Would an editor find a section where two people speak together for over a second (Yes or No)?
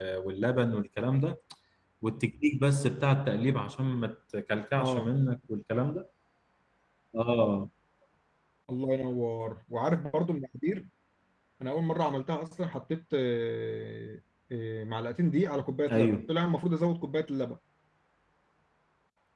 No